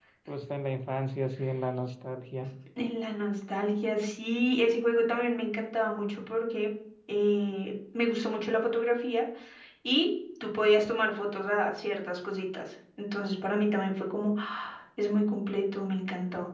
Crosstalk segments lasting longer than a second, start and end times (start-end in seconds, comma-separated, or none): none